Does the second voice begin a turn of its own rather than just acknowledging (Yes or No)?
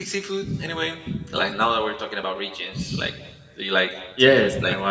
Yes